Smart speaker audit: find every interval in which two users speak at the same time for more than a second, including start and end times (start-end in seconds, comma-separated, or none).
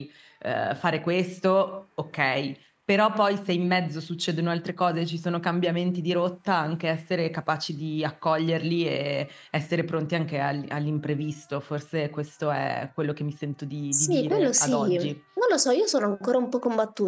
13.9-15.1